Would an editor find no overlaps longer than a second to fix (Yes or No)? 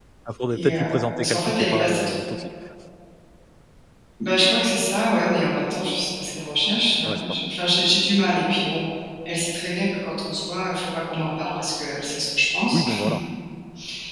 No